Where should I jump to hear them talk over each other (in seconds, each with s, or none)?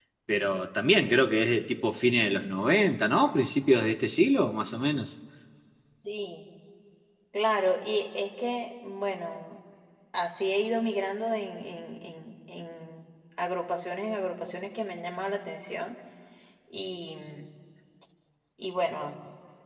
none